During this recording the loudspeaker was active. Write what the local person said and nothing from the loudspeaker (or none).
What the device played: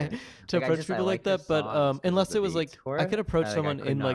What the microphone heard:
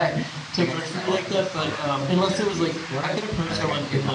none